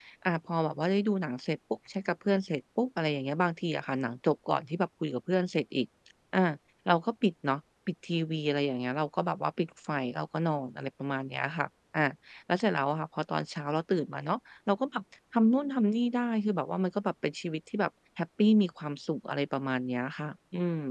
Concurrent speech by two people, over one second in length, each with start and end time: none

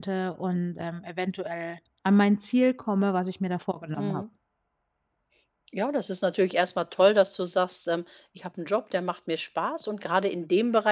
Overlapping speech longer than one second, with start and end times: none

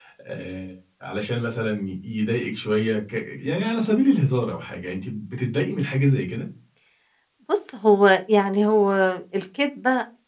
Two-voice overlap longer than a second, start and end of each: none

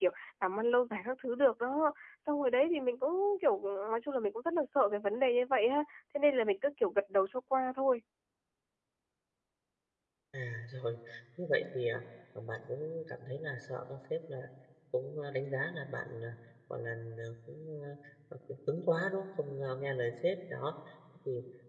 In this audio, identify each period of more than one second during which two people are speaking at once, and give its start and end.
none

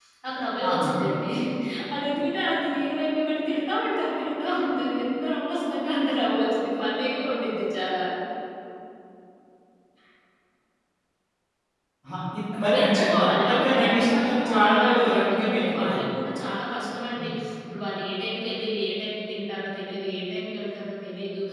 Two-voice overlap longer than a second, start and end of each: 12.7-16.0

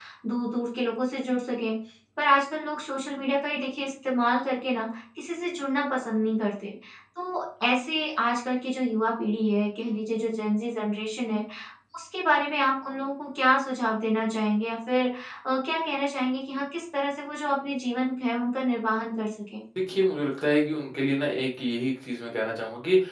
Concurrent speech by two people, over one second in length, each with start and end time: none

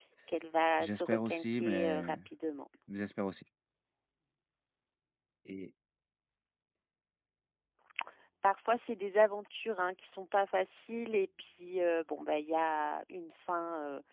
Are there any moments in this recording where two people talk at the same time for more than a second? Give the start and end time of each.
0.8-2.2

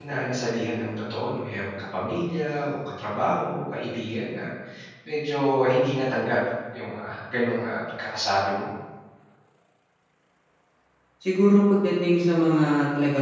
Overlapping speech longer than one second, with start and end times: none

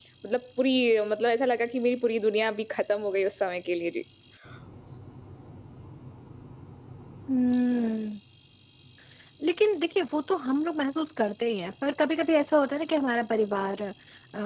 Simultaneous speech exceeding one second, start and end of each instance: none

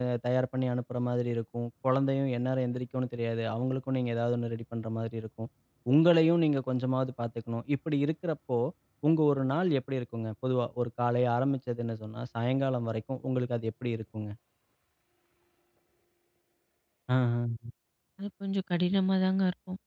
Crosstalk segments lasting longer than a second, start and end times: none

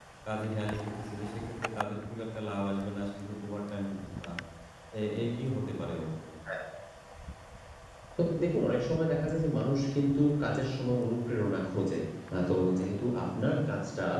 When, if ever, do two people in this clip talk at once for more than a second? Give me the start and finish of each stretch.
none

